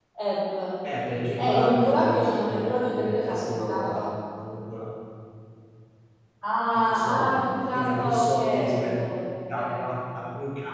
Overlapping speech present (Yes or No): Yes